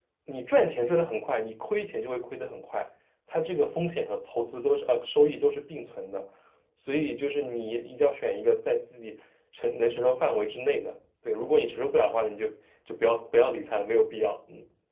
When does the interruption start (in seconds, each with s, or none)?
none